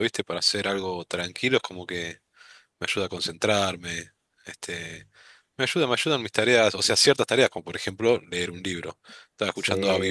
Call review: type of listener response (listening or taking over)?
taking over